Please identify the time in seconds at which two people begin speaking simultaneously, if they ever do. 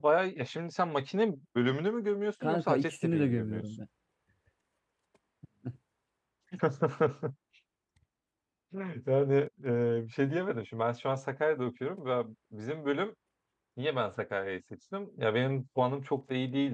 2.4 s

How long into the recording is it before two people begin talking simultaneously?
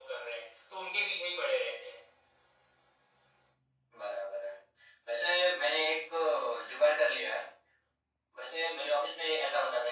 none

